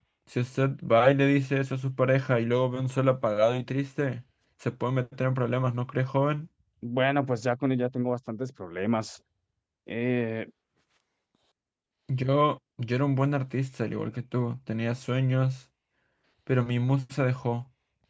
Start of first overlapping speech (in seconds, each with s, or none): none